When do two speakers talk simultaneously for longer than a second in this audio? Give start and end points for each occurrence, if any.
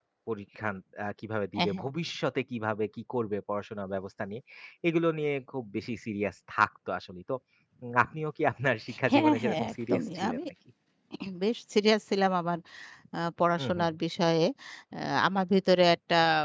9.1-10.4

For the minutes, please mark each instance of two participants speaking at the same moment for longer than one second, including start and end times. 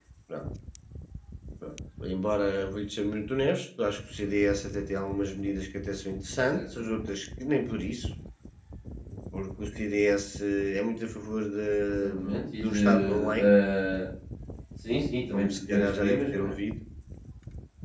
11.9-13.5, 15.3-16.5

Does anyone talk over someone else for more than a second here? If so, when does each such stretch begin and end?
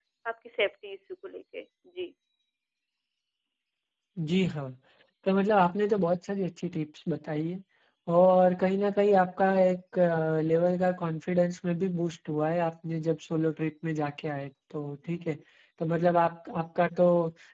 none

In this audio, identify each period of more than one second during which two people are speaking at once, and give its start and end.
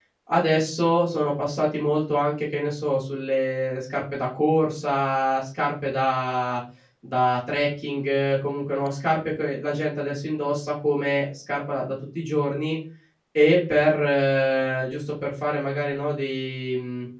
none

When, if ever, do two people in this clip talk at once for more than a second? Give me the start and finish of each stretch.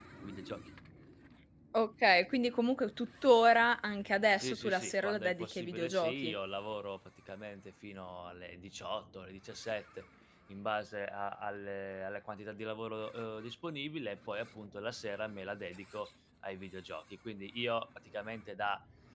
4.4-6.3

